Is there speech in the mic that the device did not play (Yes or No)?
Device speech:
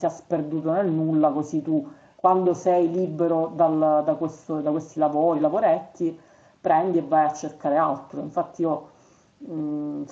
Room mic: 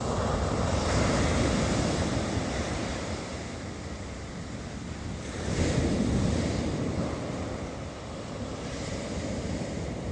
No